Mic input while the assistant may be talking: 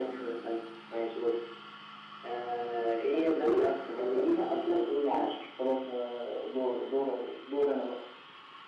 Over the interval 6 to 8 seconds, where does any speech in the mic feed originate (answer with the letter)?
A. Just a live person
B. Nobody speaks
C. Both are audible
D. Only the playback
D